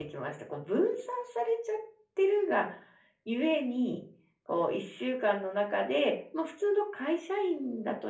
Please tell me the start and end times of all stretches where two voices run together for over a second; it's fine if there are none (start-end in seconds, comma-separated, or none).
none